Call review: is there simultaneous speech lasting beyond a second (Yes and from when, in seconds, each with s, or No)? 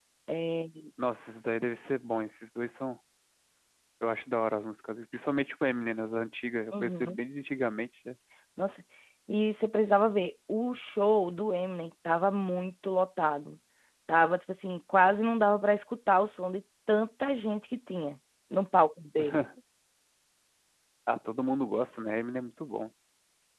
No